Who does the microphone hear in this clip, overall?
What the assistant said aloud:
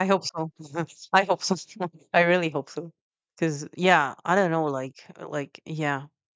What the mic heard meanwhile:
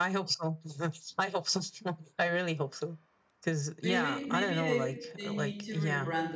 both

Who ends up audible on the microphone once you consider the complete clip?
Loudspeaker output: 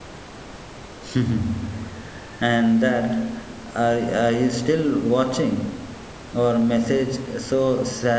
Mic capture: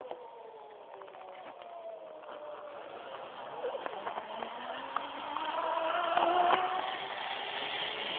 neither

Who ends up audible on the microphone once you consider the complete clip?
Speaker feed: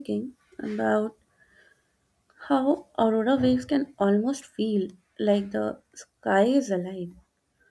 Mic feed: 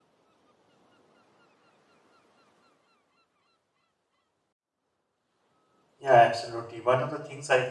user only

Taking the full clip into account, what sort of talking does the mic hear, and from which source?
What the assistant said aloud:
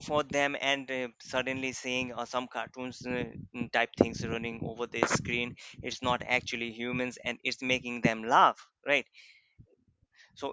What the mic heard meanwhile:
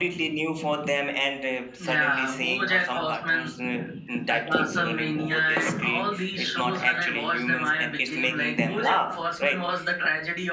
both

